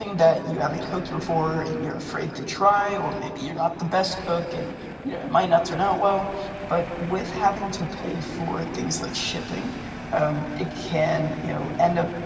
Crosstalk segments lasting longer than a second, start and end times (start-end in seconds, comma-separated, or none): none